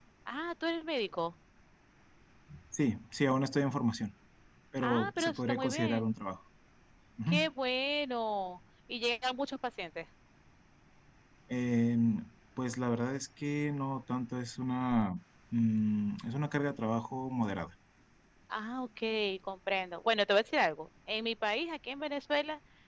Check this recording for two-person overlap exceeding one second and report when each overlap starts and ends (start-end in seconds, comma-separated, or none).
4.8-6.1